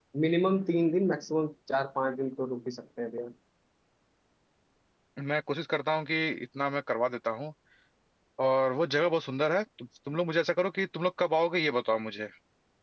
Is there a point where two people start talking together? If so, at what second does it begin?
none

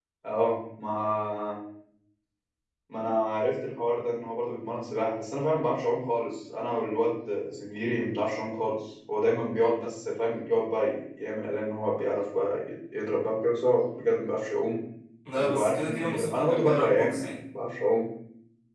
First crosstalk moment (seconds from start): 15.3 s

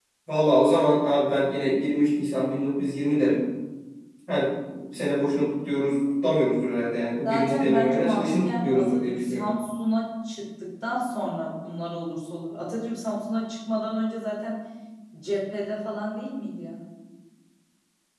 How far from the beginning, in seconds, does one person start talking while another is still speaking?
7.2 s

